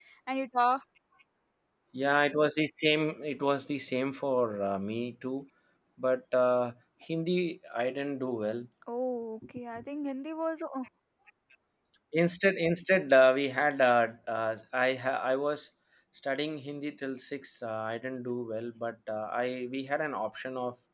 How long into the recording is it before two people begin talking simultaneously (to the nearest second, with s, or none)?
none